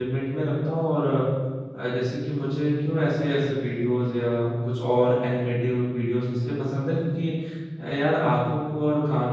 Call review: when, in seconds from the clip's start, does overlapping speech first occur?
none

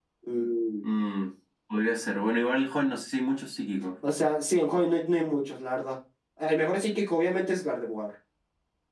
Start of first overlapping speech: none

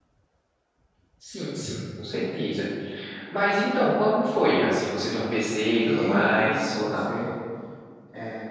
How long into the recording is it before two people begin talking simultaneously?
6 s

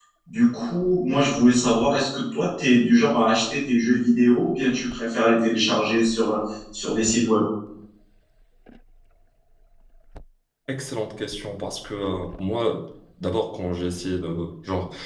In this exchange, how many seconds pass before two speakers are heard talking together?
none

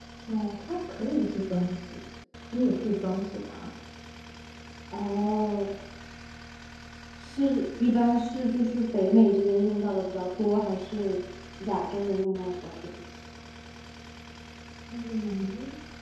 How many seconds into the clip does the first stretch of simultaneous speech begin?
none

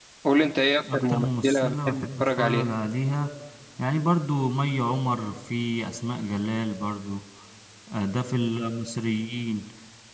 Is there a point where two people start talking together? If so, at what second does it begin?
1 s

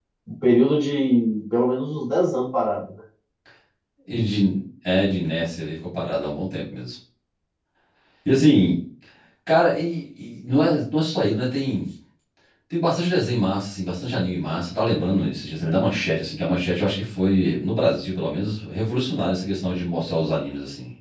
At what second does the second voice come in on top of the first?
none

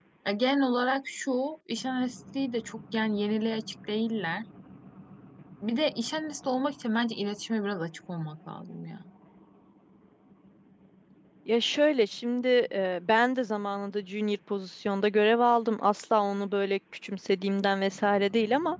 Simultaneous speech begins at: none

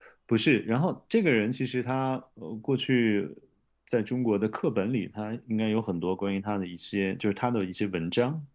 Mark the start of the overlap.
none

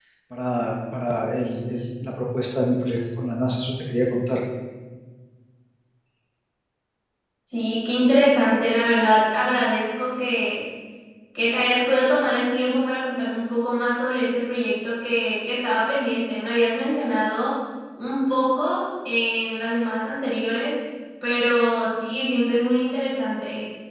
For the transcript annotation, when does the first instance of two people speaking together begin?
none

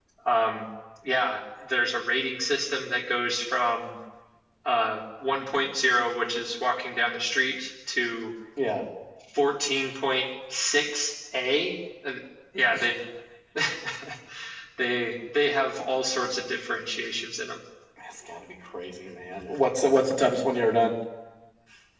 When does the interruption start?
none

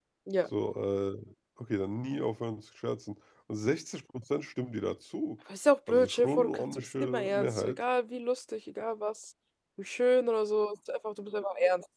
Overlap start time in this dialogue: 6 s

